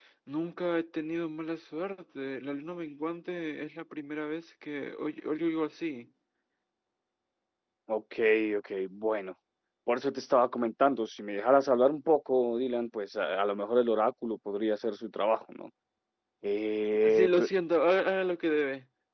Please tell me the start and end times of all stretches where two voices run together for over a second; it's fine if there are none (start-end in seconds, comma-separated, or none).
none